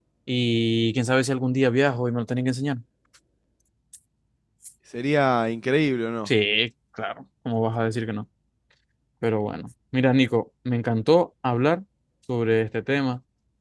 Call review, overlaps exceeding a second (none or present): none